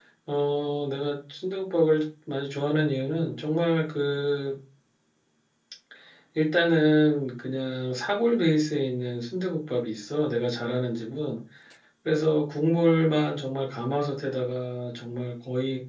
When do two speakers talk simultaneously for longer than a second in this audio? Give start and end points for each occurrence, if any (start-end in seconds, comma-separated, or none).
none